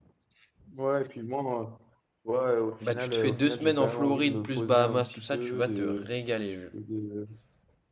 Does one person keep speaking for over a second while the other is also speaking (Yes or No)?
Yes